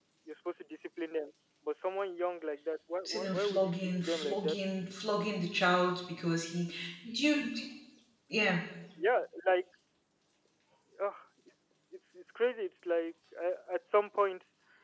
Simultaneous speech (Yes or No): Yes